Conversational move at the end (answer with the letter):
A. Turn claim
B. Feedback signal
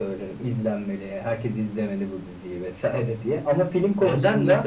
A